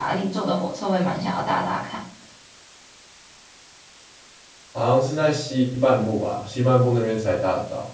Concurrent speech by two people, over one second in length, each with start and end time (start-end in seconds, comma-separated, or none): none